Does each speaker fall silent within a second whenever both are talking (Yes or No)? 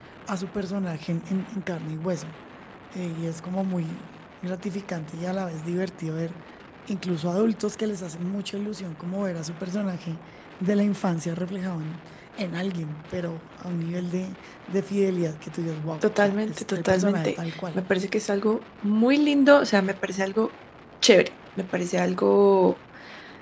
No